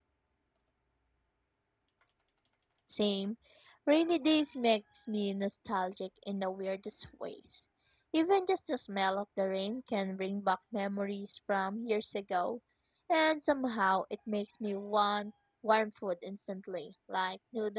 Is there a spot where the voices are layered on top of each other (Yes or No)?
No